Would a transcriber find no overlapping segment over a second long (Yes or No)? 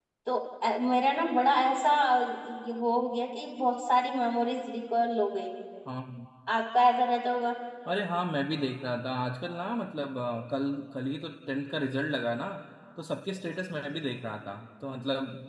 Yes